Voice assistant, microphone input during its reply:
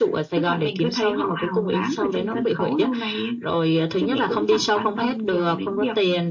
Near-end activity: none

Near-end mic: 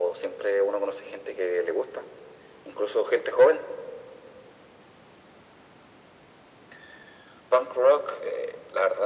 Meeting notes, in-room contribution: none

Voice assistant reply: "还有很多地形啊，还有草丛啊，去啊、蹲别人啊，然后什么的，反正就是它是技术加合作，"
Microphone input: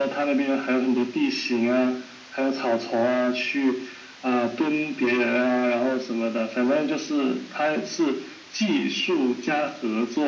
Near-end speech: none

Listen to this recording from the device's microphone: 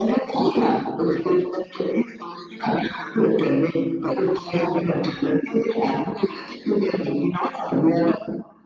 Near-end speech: none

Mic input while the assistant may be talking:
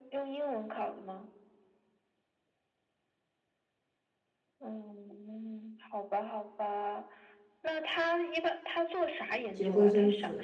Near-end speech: present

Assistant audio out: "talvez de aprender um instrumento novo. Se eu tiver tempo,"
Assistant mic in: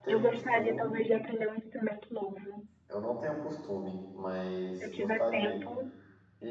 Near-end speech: present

